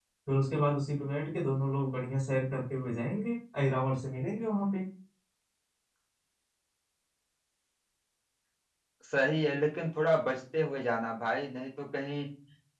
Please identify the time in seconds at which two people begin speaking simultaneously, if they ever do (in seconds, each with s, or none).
none